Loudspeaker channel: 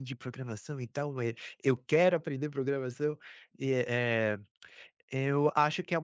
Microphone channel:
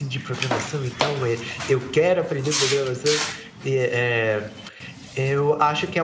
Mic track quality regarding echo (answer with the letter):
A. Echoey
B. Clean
A